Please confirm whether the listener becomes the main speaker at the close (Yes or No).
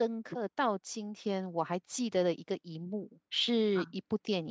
No